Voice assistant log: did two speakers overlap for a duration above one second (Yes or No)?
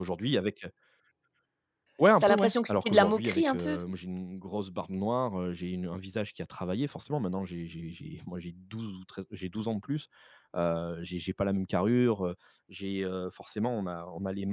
Yes